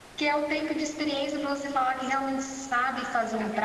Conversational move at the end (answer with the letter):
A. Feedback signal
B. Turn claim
A